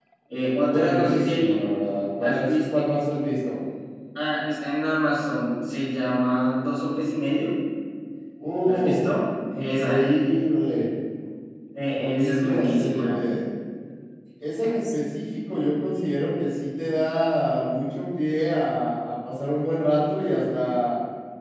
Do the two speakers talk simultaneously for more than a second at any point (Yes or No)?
Yes